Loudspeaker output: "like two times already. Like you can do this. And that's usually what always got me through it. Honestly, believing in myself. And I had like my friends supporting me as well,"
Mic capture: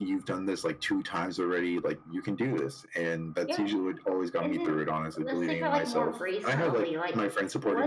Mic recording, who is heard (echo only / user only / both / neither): both